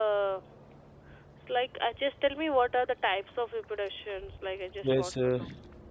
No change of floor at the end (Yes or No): No